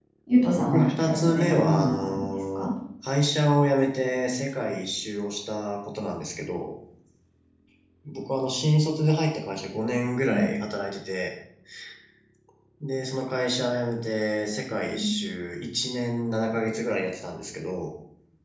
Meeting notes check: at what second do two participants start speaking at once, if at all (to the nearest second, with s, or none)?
1 s